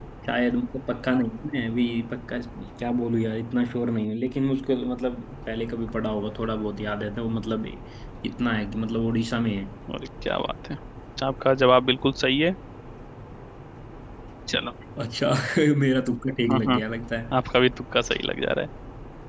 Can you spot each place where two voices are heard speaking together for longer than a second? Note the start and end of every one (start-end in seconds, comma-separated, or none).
none